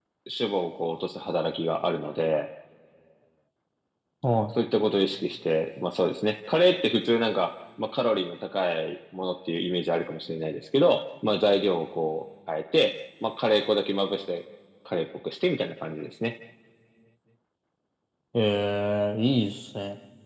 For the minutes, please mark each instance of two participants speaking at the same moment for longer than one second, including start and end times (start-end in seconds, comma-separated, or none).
none